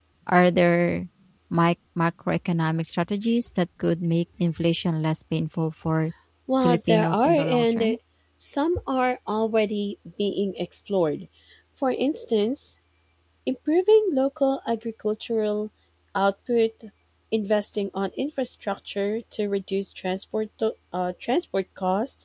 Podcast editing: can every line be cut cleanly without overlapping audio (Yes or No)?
No